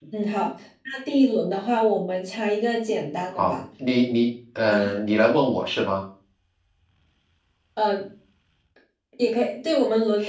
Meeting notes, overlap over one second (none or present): none